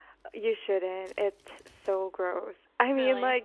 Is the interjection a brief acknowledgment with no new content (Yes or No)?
Yes